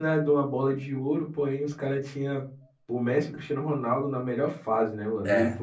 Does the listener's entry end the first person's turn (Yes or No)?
No